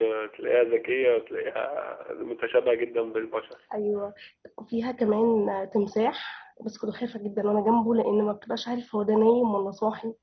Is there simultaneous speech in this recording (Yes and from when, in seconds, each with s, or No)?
No